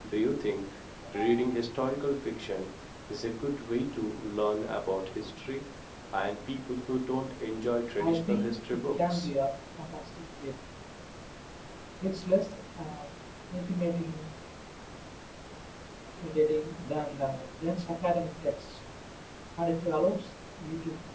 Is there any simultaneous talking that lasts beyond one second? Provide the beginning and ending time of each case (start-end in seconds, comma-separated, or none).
8.0-9.3